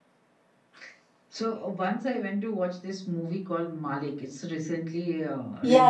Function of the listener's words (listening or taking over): taking over